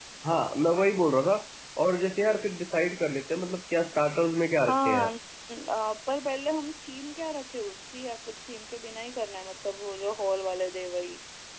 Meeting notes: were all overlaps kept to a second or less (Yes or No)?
Yes